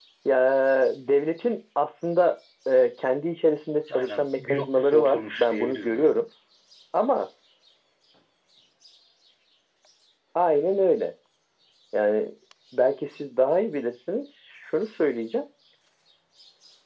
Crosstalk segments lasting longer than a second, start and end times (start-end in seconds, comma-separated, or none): 3.9-6.2